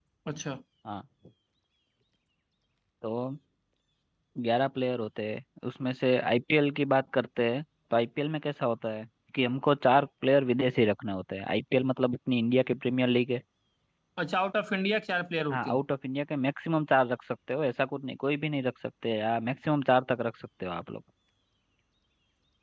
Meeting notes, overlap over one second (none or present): none